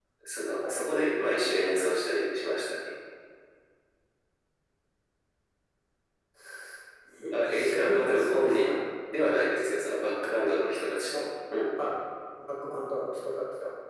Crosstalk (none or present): present